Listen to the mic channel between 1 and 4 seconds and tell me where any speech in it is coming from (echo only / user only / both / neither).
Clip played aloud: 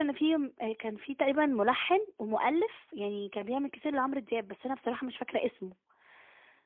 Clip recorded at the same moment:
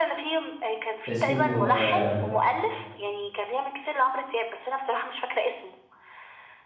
both